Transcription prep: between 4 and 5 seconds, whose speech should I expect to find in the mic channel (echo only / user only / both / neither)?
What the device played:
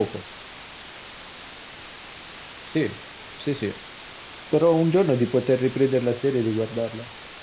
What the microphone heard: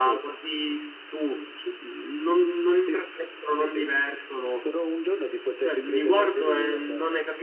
both